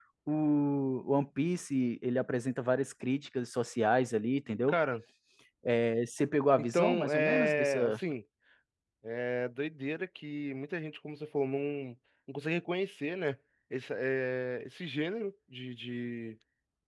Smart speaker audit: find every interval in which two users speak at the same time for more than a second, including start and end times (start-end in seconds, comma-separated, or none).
6.6-8.0